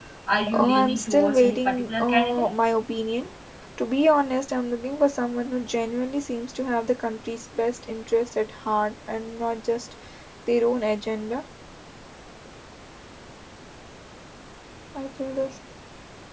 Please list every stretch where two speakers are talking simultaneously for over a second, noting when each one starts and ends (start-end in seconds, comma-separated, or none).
0.5-2.5